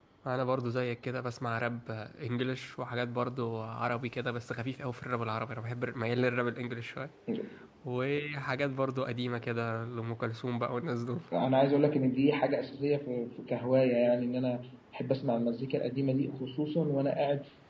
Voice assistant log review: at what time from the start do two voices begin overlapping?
none

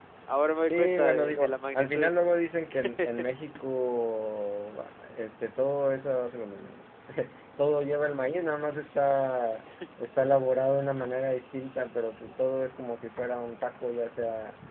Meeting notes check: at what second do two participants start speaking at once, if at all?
1 s

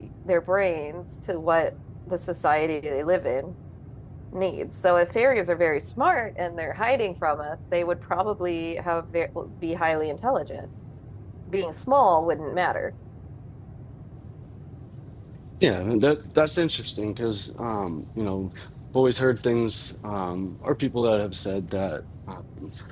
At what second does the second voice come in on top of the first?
none

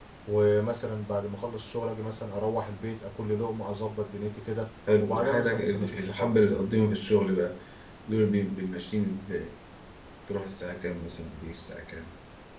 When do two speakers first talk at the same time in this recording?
5 s

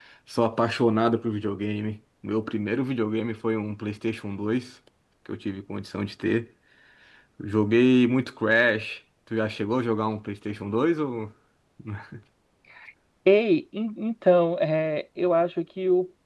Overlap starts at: none

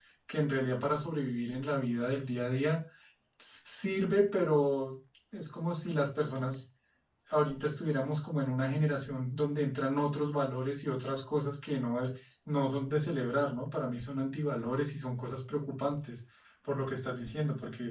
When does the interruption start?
none

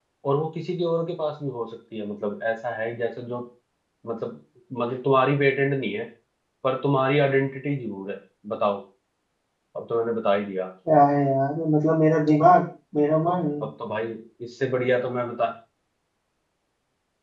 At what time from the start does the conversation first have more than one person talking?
none

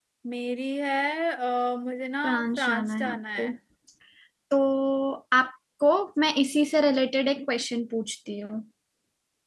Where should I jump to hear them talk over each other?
2 s

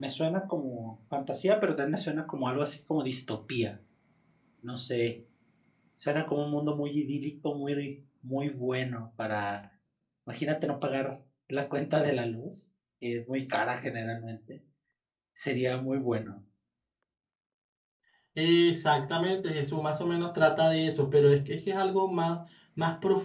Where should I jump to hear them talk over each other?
none

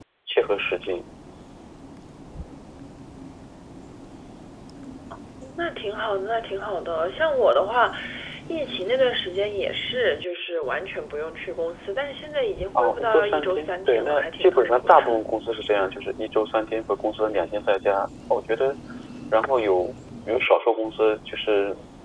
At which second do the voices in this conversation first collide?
13 s

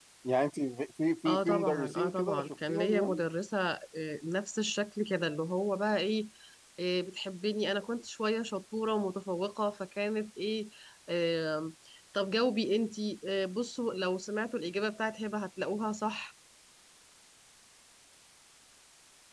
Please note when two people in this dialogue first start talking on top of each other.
1 s

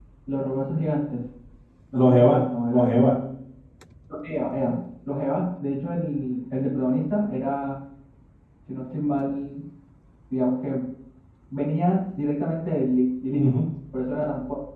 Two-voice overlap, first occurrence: 2 s

